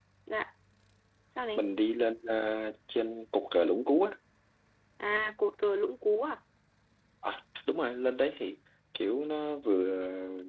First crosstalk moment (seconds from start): none

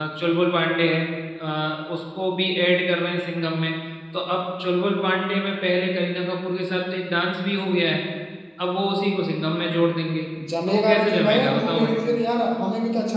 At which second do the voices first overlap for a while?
11 s

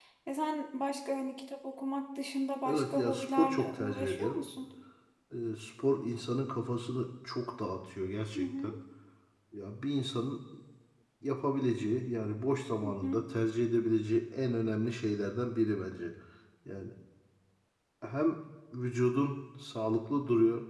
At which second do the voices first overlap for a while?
3 s

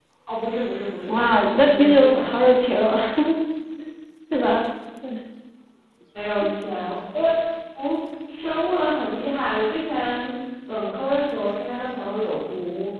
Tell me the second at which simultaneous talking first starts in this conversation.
1 s

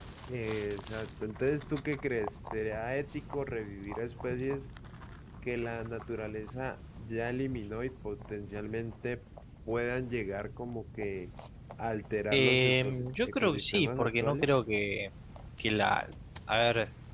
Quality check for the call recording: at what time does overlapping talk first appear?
12 s

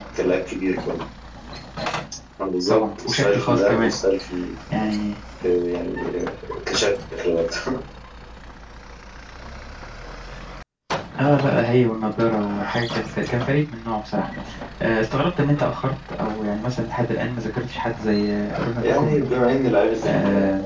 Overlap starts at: 3 s

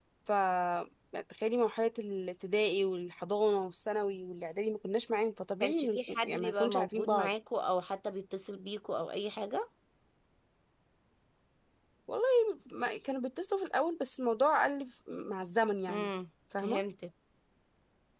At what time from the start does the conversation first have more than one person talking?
6 s

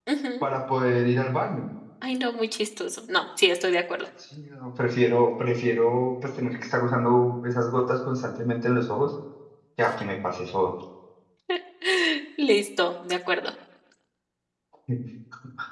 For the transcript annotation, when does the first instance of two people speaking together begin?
none

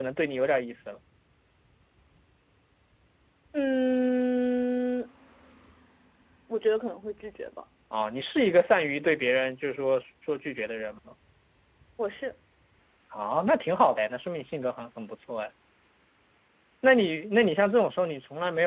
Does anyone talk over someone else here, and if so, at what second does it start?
none

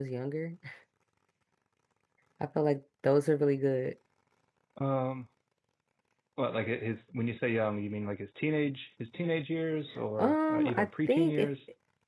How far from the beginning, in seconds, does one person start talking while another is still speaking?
10 s

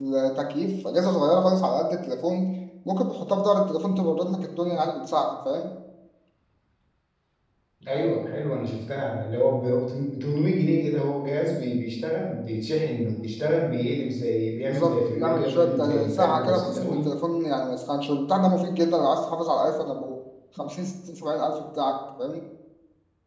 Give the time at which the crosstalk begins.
15 s

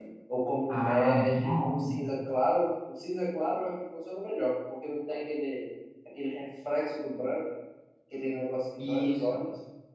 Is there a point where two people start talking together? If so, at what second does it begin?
1 s

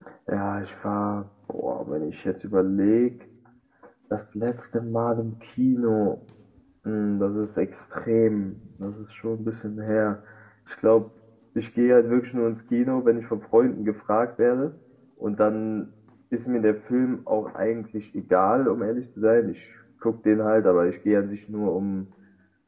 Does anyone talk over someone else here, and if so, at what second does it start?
none

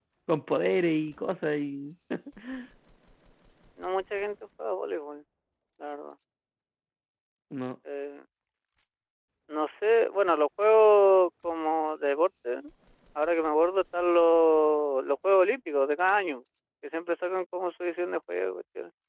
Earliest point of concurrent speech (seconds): none

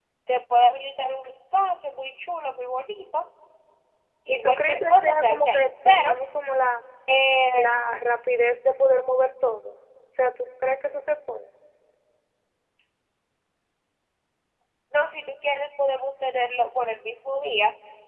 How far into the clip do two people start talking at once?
4 s

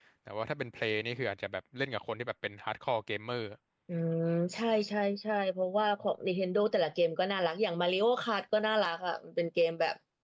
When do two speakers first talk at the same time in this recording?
none

